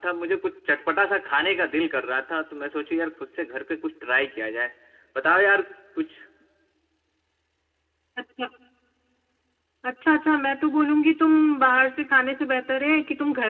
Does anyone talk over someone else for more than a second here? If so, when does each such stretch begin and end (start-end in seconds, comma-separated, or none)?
none